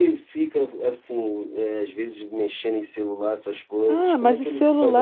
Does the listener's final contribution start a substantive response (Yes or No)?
Yes